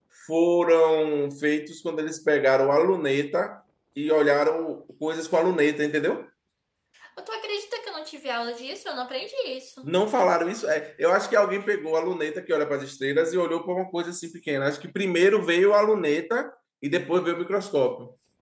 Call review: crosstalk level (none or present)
none